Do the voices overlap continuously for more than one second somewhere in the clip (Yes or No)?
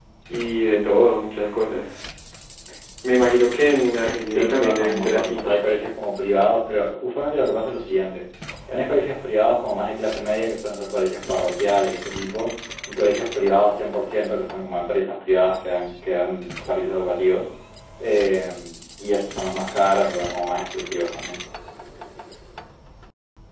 Yes